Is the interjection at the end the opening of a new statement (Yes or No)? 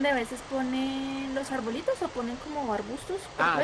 Yes